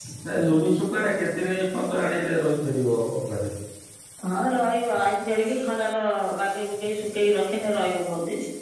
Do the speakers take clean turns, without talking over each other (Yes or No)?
Yes